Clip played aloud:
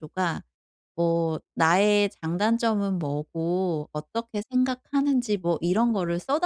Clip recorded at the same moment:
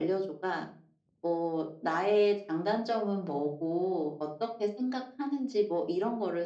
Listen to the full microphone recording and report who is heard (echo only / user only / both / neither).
echo only